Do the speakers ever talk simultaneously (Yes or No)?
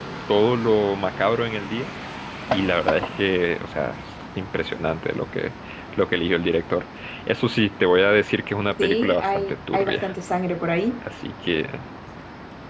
Yes